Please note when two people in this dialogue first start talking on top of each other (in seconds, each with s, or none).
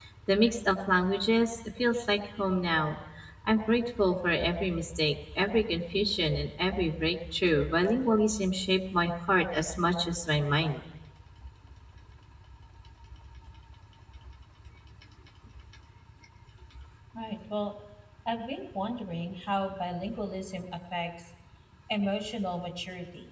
none